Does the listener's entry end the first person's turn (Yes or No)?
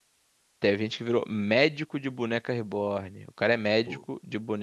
No